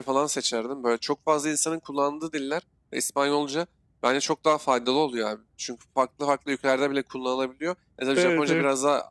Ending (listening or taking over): listening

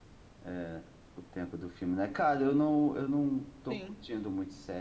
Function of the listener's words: listening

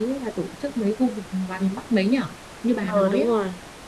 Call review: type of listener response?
taking over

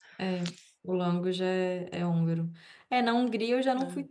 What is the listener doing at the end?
listening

